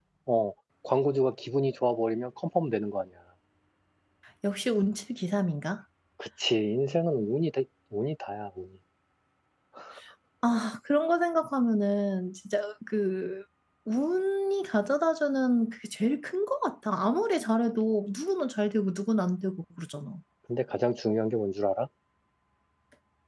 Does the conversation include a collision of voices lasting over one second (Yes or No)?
No